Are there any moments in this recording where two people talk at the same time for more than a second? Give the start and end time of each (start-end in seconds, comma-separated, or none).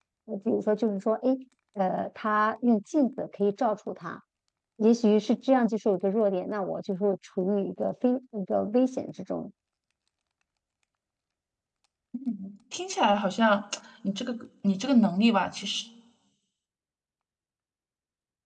none